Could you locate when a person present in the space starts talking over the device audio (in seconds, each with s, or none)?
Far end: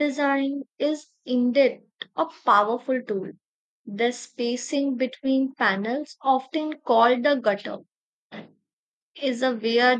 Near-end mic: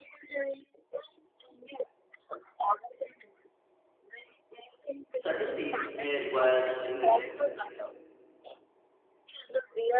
5.1 s